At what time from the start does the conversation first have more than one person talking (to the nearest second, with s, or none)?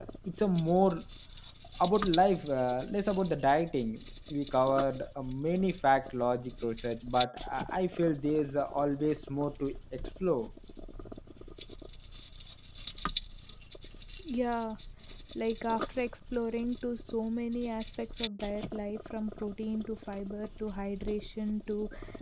none